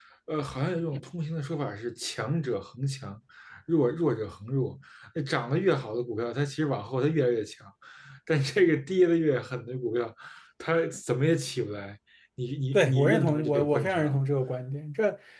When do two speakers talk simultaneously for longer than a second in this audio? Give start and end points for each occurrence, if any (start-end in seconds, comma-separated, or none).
12.7-14.2